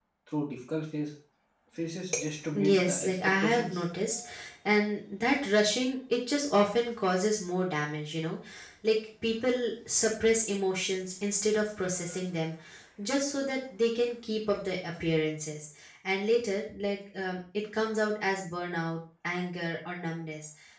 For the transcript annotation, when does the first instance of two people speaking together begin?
2.6 s

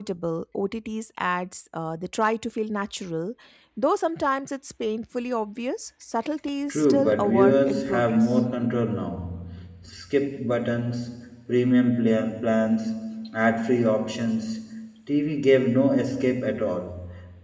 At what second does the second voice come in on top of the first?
6.7 s

